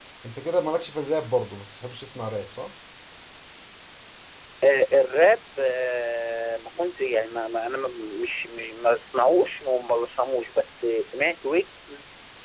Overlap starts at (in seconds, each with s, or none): none